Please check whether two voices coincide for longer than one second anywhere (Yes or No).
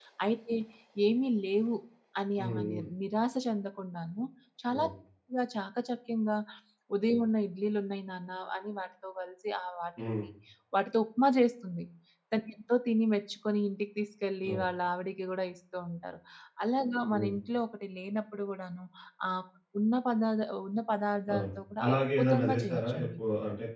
Yes